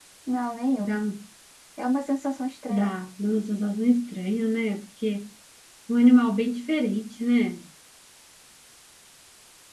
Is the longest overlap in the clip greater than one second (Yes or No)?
No